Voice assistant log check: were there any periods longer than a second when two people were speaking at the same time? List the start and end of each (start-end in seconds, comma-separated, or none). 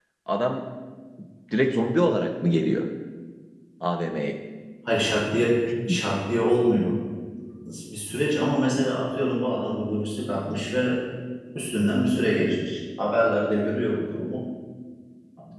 none